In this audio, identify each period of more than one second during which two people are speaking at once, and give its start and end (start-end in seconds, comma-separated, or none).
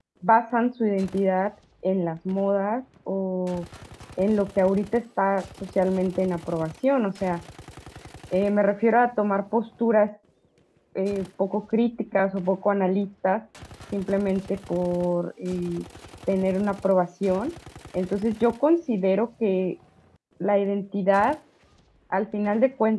none